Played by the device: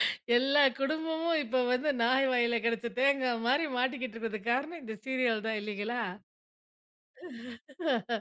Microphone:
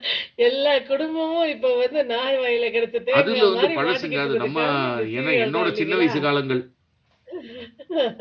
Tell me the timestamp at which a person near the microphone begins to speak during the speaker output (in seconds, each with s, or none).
3.2 s